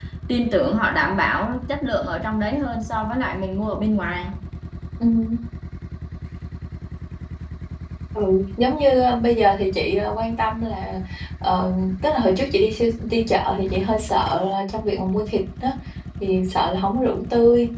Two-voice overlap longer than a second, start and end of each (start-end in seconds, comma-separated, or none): none